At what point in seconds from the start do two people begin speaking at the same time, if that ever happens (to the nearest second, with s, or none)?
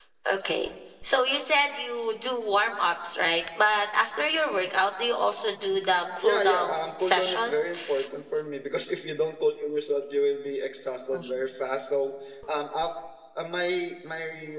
6 s